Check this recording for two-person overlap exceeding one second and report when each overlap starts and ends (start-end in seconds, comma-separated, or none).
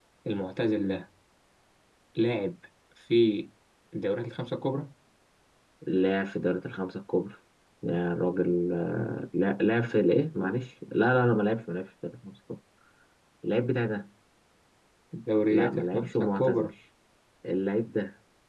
15.5-16.7